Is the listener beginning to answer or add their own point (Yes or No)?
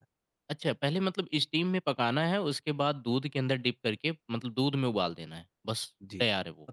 Yes